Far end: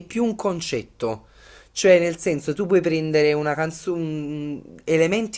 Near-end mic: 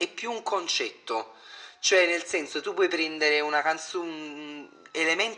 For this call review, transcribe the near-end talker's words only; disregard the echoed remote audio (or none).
none